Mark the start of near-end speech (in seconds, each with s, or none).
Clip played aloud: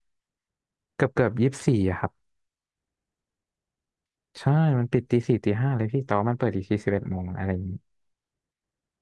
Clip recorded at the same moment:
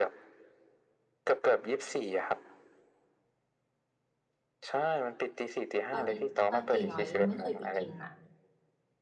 5.9 s